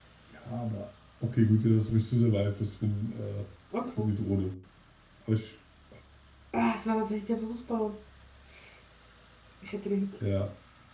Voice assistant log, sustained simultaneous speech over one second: none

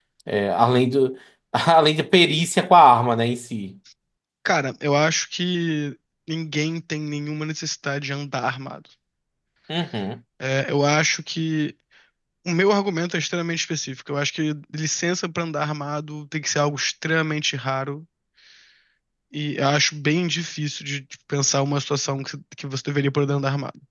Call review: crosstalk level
none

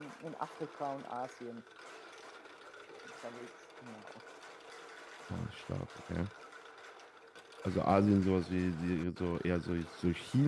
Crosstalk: none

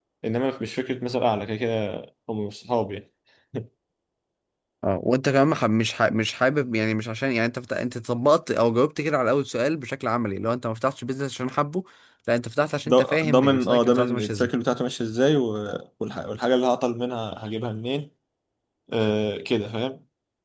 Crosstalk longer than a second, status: present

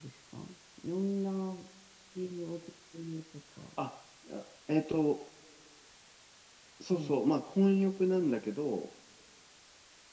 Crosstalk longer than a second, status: none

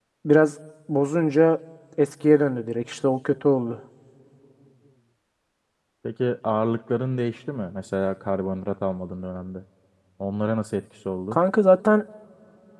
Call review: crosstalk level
none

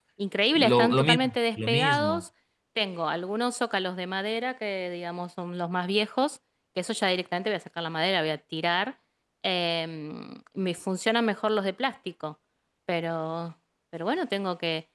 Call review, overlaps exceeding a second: present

